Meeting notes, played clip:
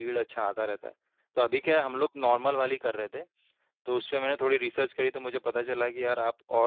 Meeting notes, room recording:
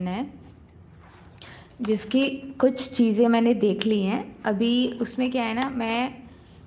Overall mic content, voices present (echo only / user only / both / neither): user only